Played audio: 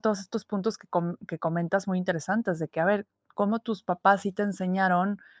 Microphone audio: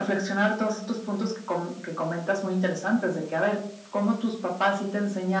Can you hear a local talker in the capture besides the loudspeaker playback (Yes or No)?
No